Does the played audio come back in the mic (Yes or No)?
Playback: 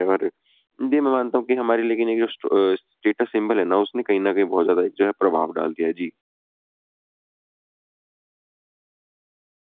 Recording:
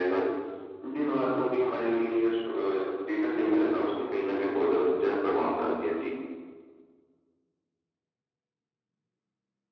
Yes